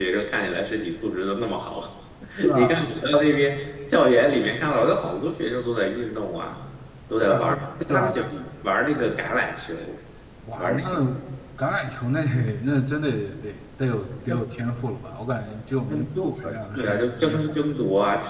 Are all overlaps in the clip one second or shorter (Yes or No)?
No